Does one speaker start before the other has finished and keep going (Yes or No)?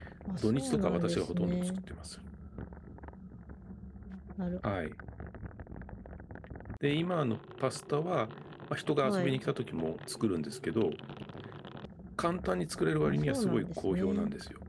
Yes